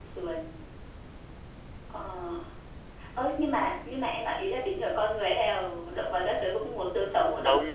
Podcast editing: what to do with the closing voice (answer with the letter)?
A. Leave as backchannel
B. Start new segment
B